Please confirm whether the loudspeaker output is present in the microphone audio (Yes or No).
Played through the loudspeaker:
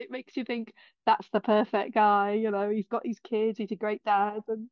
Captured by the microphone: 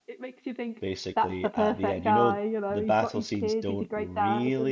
Yes